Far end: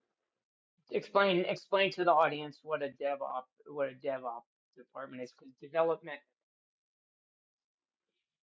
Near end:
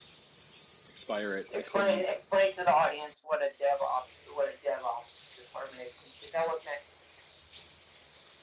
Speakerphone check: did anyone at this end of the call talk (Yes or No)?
Yes